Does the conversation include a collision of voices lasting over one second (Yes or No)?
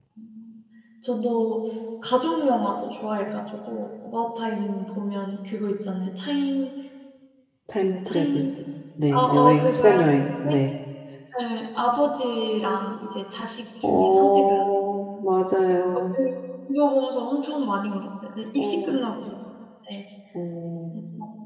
Yes